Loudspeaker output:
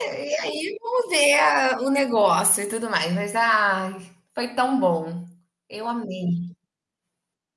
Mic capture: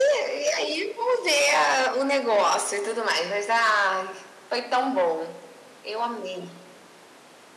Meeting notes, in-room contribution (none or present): none